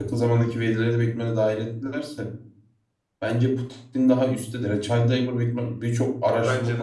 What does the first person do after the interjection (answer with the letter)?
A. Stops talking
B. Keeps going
B